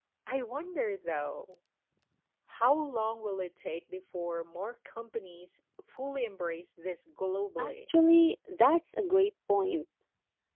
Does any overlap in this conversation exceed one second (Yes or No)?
No